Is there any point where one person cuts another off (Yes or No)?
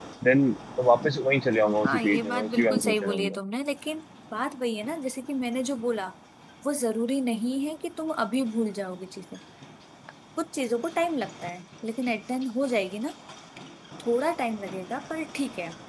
Yes